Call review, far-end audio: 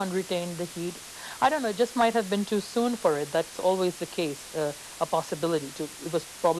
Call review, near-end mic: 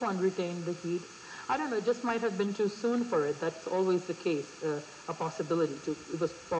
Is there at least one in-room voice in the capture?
No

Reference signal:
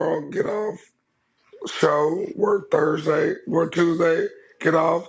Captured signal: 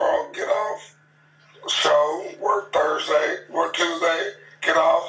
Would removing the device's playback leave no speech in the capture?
Yes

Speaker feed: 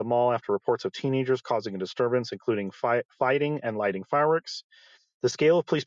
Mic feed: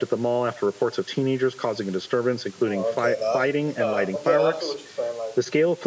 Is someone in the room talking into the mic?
Yes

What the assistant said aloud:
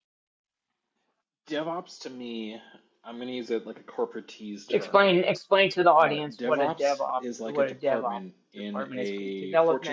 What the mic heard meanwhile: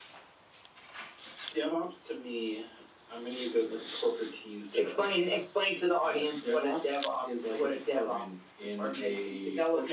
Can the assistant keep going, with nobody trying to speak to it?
Yes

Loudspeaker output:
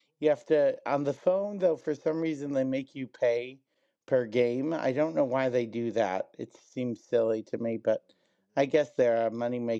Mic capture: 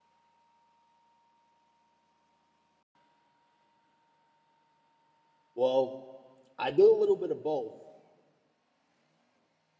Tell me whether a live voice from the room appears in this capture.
Yes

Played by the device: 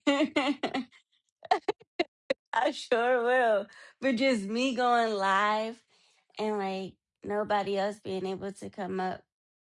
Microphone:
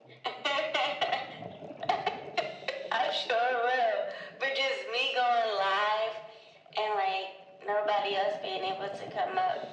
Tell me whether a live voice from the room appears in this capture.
No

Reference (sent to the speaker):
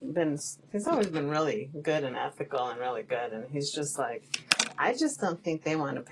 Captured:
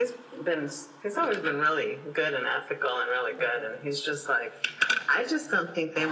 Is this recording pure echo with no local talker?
No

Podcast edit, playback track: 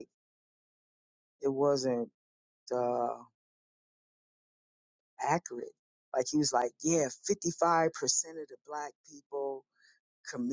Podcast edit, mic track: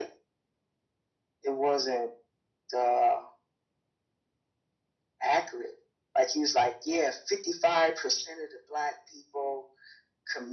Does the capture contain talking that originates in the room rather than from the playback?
No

